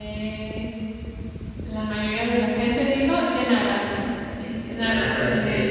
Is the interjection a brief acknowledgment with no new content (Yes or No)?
No